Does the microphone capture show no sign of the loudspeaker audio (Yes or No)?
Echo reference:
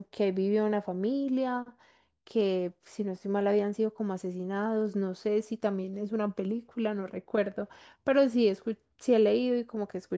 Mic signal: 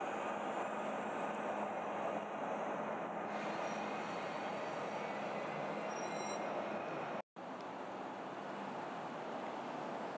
Yes